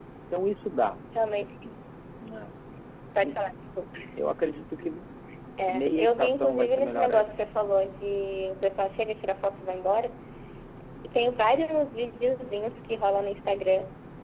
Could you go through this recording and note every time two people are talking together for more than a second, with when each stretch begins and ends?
5.7-7.2

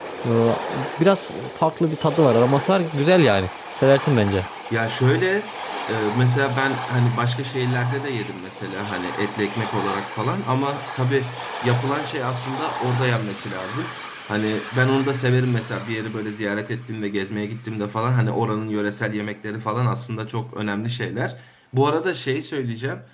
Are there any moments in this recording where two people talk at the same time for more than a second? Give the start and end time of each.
none

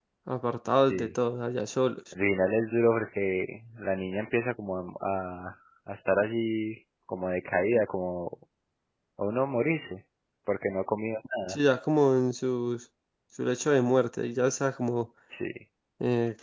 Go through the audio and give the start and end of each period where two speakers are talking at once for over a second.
none

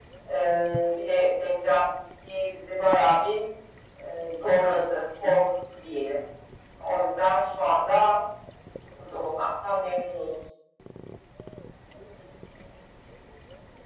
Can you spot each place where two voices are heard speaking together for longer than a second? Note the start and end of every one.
none

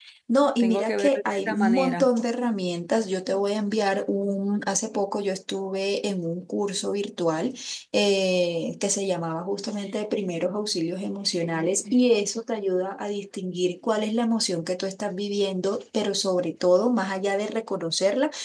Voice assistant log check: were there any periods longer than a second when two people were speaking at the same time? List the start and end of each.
0.6-2.1

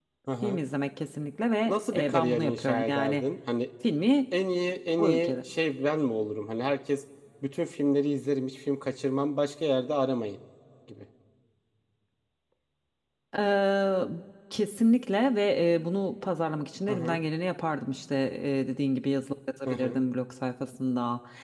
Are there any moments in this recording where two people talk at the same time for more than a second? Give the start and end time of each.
1.6-3.2

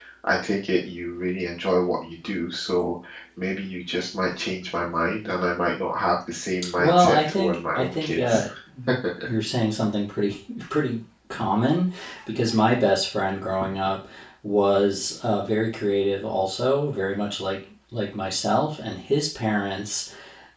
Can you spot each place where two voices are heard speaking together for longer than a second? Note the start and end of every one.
6.8-8.5

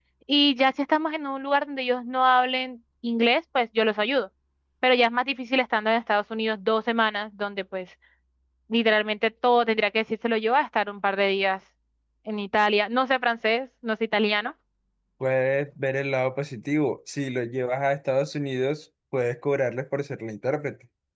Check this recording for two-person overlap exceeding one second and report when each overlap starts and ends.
none

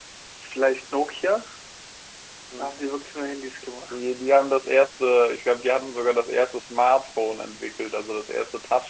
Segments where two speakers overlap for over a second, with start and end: none

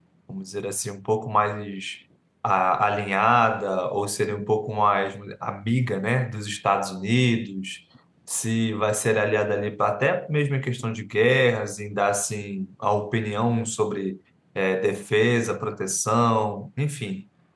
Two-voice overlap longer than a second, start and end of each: none

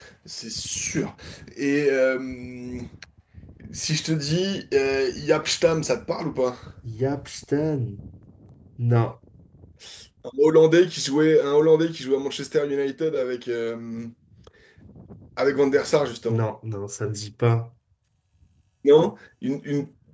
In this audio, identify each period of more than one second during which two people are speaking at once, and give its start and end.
none

